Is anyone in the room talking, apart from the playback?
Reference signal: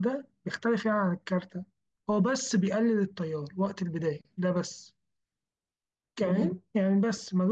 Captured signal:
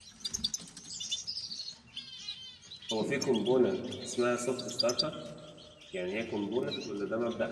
Yes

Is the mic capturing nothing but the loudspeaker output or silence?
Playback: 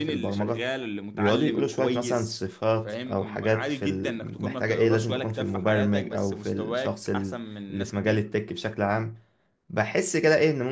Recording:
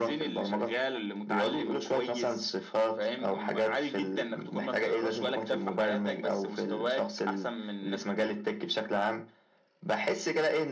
Yes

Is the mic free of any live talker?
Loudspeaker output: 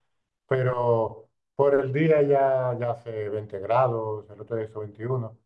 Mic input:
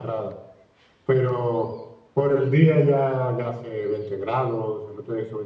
Yes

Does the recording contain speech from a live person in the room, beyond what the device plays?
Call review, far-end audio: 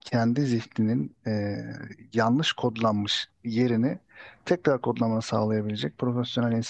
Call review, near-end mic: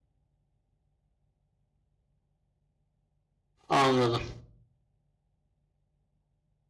Yes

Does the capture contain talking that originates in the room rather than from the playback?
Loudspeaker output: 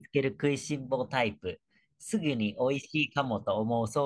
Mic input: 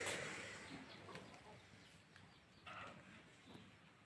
No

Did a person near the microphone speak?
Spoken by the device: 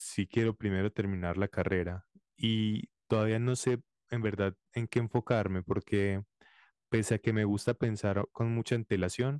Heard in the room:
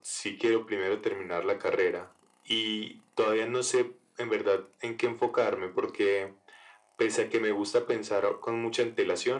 No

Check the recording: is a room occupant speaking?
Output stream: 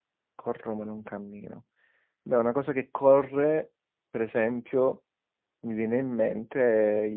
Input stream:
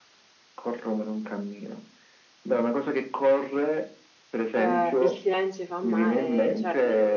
Yes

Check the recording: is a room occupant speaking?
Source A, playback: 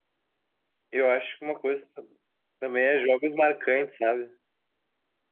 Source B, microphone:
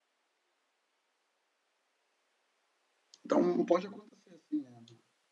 Yes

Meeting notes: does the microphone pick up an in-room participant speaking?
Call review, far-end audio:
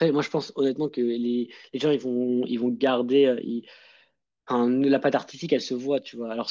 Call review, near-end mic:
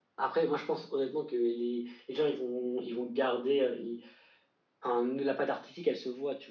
No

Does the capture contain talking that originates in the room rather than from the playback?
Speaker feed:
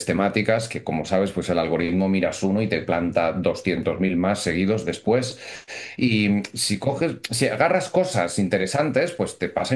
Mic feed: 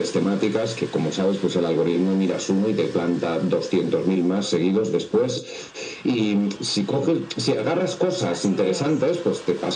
Yes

